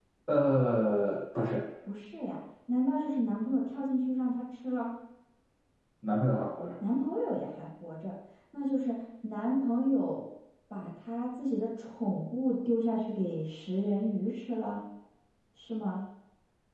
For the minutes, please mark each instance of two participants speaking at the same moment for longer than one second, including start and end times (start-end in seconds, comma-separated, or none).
none